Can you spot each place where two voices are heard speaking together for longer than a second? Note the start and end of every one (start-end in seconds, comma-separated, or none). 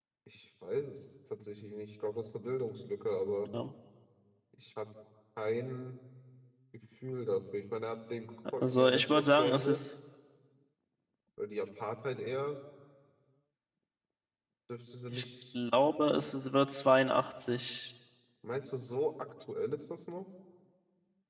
8.6-9.9